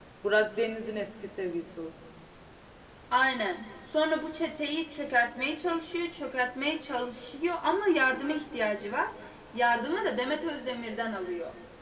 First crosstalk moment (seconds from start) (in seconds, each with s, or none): none